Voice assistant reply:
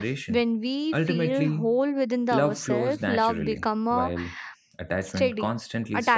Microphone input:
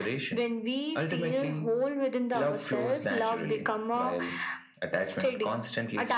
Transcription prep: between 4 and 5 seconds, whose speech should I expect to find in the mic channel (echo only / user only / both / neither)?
echo only